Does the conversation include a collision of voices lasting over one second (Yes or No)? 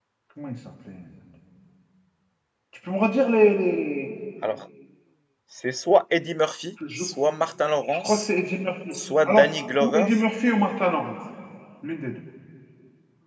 No